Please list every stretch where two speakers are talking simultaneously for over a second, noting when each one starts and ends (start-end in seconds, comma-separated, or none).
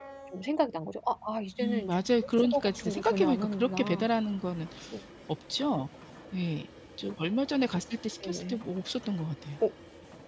1.6-4.1